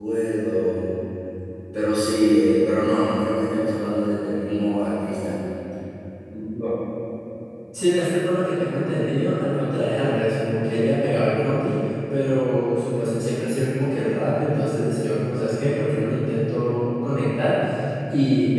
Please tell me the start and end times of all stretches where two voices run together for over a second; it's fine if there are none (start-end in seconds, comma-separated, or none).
none